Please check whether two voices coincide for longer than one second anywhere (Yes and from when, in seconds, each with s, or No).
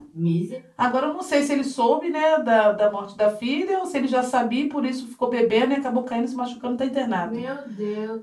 No